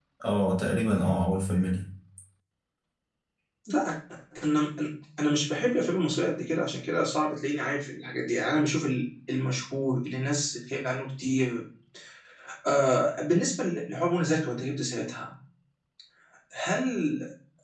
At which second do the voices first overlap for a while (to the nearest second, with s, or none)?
none